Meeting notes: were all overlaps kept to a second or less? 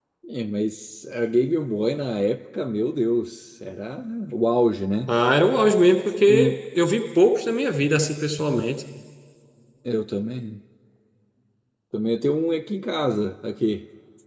Yes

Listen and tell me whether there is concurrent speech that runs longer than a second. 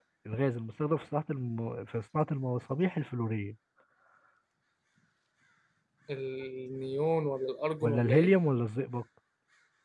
No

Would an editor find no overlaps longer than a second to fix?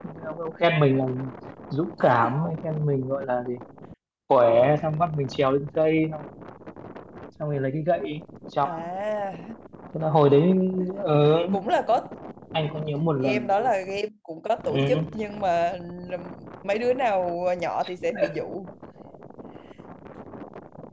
Yes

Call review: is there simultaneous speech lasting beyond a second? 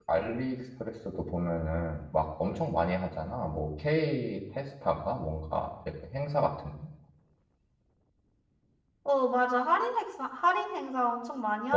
No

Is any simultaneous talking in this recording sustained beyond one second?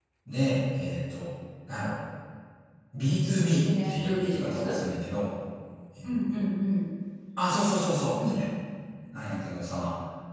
Yes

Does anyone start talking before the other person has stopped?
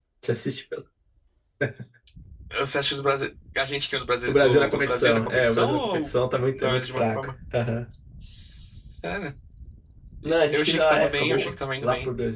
Yes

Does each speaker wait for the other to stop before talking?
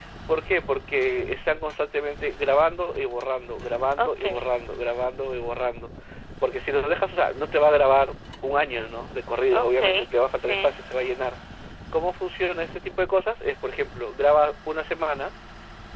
No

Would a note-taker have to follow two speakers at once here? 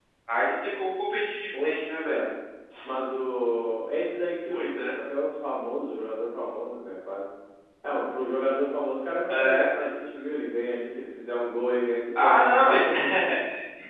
Yes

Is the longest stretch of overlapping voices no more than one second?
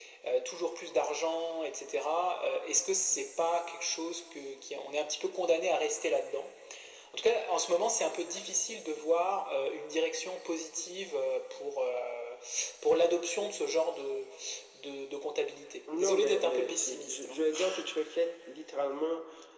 No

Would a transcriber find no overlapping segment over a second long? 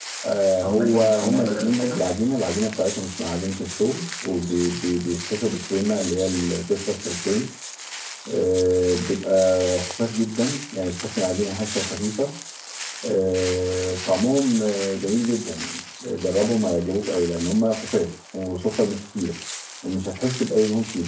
No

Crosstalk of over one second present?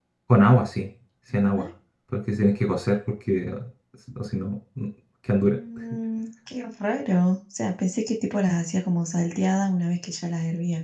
No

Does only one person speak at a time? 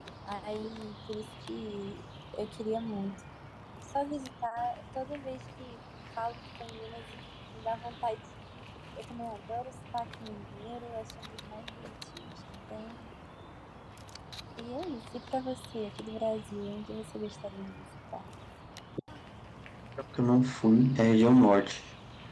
Yes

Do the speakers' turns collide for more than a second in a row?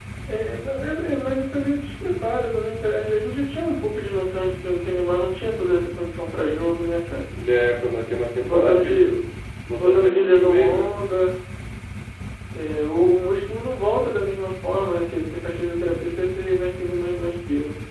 Yes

